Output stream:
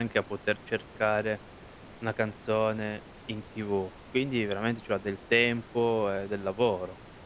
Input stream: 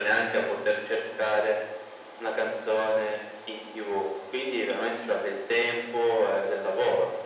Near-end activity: none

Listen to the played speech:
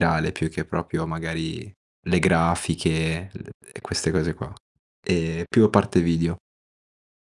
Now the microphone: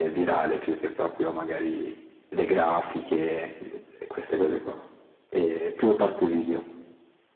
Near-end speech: none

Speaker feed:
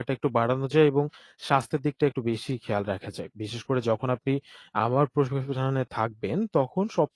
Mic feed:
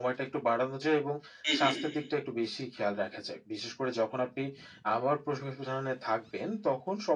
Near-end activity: present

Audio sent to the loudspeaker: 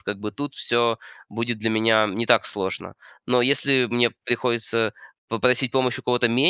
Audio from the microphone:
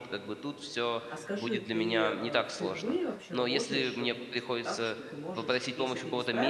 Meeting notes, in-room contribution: present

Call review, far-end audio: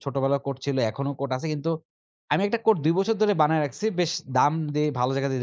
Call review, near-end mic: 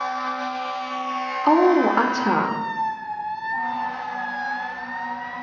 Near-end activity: present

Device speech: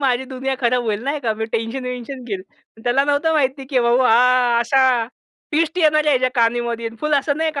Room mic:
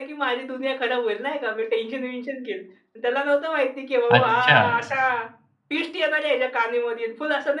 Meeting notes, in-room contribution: present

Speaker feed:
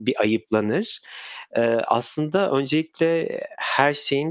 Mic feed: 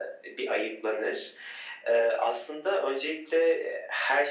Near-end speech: none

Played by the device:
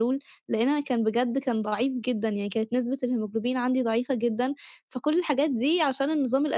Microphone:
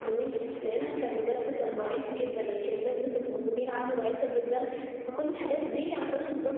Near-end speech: none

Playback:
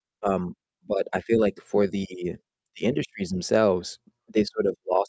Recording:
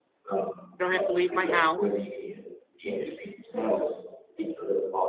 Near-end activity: present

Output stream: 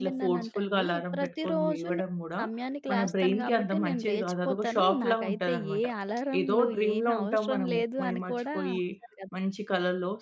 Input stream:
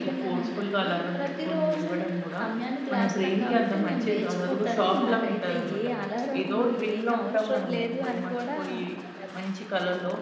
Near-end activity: none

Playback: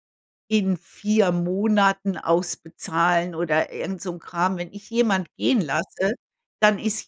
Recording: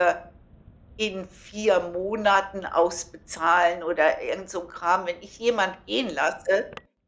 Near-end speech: none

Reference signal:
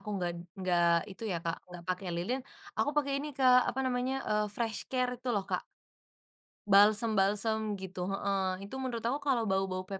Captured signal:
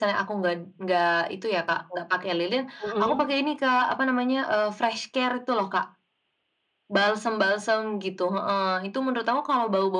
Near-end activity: present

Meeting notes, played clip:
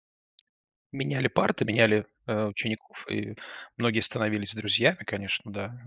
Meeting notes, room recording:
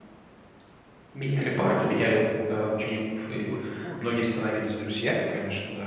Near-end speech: present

